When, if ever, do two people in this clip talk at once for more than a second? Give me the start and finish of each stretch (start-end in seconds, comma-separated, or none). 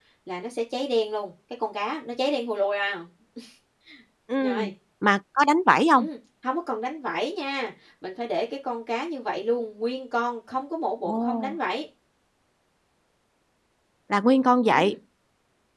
none